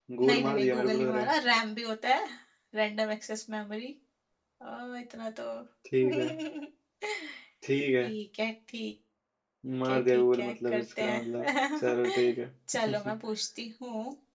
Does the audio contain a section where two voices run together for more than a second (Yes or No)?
Yes